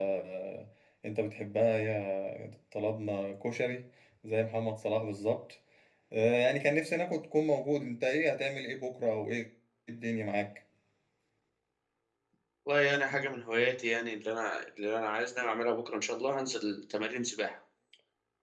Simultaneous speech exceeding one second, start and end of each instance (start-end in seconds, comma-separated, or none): none